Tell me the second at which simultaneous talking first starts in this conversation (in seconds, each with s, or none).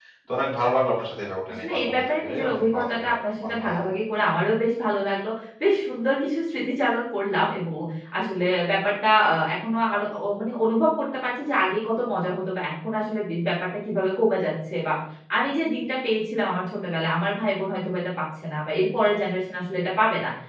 1.6 s